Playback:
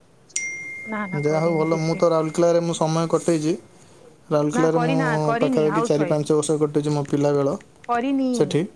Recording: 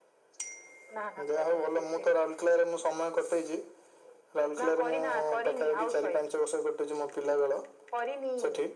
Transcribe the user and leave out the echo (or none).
none